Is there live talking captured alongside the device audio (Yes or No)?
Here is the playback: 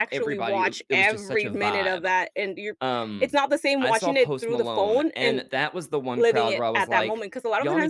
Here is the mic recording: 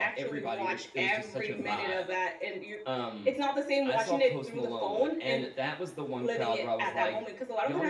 No